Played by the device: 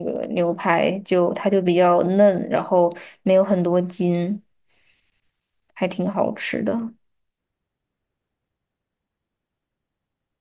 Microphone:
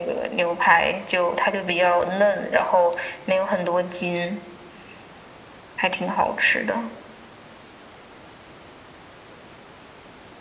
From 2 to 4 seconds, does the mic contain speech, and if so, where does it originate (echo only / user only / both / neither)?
echo only